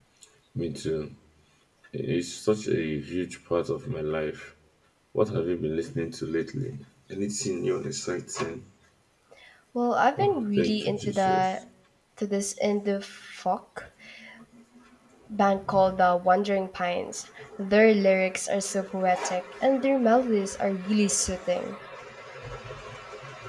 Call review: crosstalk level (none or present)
present